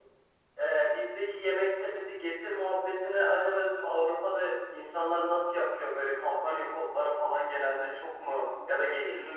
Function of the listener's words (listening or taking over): listening